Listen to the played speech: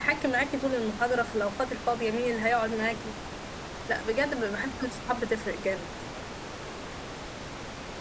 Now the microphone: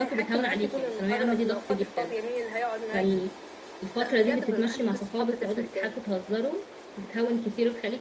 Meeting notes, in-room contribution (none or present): present